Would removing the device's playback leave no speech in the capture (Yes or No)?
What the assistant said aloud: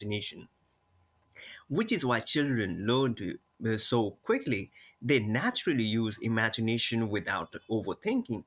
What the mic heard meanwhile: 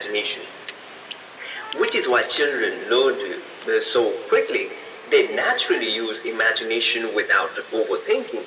Yes